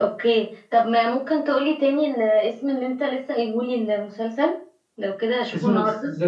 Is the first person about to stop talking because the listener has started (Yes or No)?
Yes